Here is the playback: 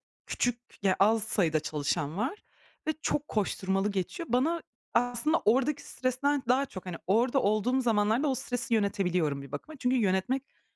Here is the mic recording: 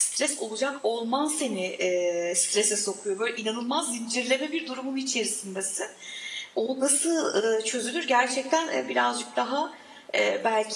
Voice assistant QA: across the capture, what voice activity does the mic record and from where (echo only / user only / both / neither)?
user only